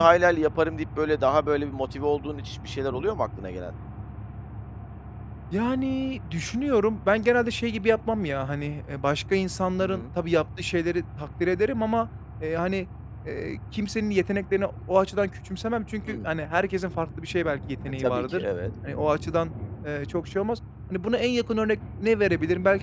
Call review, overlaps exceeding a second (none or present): none